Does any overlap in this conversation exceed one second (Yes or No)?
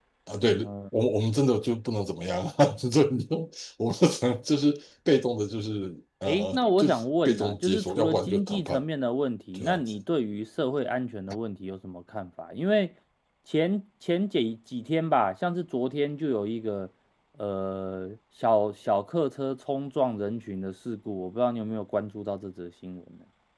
Yes